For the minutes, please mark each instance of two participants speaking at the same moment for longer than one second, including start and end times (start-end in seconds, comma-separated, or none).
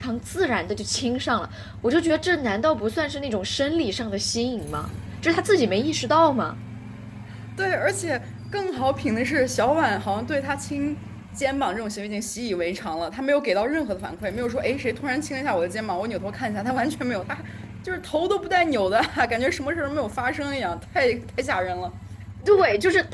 none